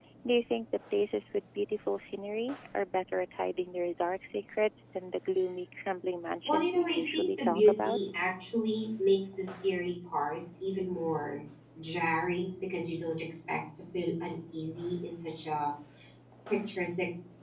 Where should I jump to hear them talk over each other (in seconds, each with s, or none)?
6.4 s